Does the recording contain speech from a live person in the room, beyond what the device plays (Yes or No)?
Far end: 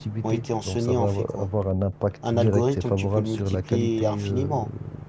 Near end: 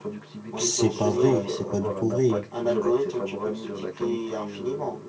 Yes